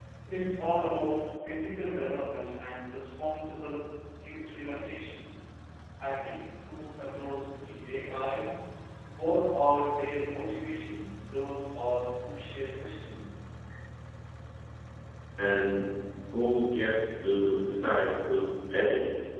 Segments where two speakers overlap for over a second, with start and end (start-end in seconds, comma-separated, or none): none